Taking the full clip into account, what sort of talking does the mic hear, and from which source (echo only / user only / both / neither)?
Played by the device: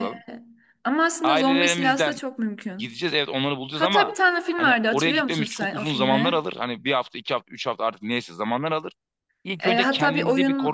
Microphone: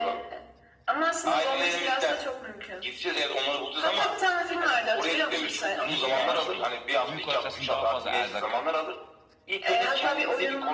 both